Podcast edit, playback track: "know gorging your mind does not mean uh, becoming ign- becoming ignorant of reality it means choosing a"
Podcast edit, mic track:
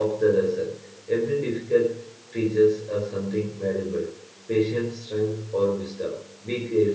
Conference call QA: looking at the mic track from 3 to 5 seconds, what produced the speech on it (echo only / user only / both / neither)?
user only